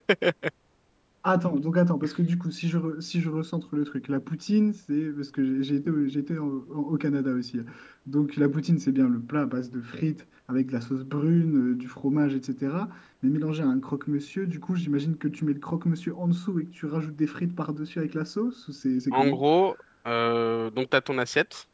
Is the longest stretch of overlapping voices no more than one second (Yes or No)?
Yes